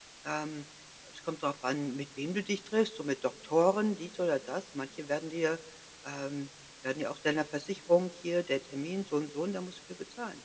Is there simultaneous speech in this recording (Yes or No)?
No